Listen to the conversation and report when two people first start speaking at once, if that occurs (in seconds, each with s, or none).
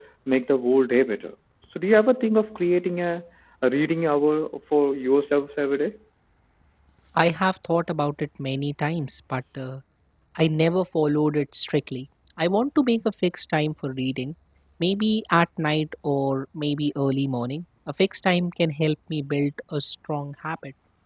none